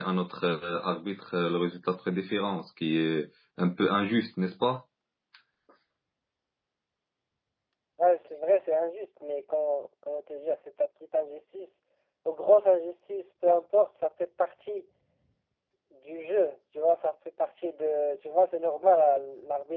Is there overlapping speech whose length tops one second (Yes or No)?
No